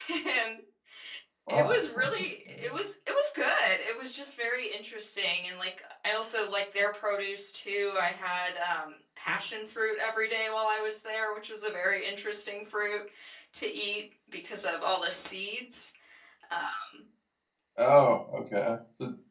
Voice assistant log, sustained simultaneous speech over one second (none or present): none